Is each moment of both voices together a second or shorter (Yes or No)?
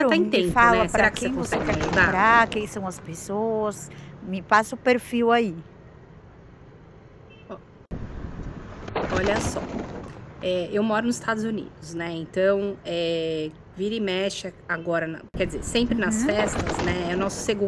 No